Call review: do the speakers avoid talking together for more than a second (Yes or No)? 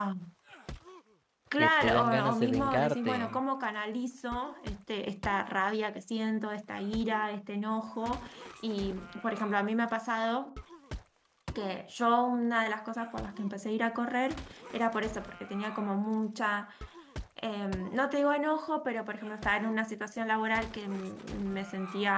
No